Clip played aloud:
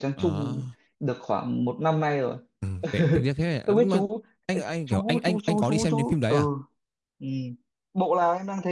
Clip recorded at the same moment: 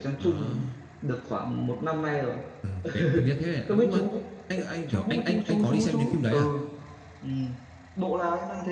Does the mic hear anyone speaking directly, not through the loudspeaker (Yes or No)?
No